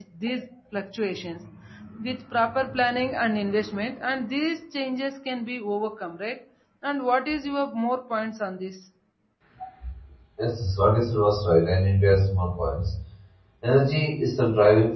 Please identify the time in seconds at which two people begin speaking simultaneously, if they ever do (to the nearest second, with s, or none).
none